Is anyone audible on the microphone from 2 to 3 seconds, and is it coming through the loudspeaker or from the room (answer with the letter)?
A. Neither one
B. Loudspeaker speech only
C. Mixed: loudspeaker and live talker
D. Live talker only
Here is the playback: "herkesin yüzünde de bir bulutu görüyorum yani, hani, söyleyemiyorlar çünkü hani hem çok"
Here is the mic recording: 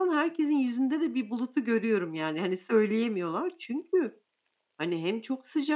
B